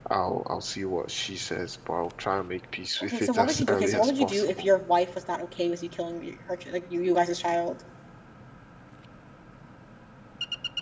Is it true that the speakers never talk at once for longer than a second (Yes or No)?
No